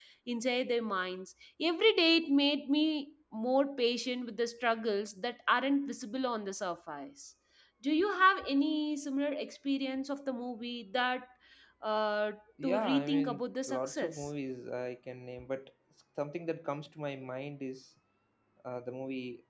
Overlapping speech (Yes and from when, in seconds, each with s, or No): Yes, from 12.6 s